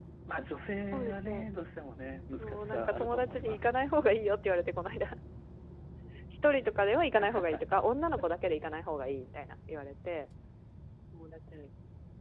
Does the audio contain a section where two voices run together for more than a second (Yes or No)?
Yes